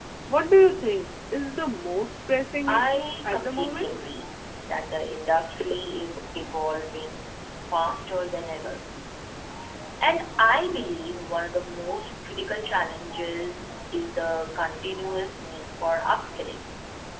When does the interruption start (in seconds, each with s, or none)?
2.7 s